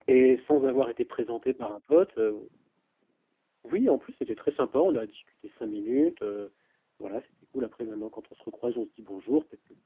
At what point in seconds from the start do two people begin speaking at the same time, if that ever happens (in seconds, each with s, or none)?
none